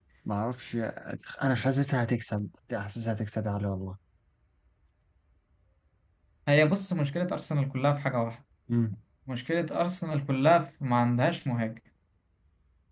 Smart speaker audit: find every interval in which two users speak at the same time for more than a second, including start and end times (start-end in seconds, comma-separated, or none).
none